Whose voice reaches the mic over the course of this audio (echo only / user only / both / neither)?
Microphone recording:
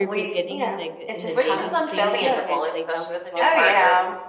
both